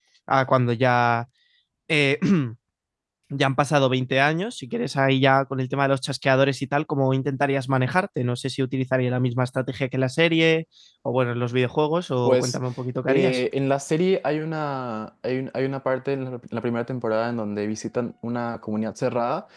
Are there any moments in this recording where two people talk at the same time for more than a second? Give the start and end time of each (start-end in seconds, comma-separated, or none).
none